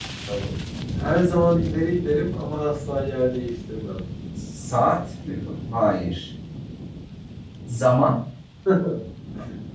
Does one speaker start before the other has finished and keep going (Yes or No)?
No